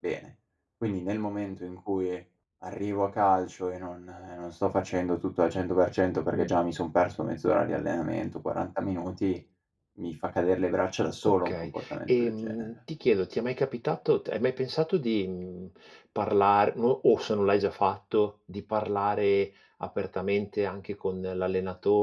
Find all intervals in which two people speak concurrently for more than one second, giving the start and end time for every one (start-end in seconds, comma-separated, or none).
11.2-12.7